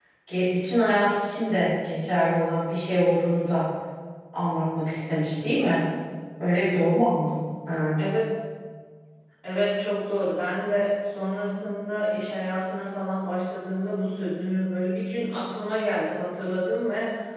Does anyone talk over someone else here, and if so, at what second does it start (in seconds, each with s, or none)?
none